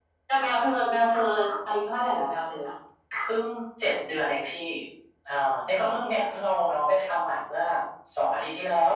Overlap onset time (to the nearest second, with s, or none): none